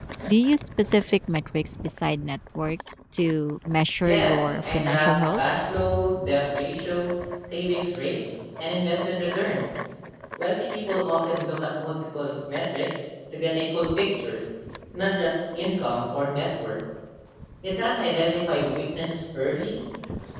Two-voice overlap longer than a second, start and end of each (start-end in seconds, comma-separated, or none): 4.0-5.4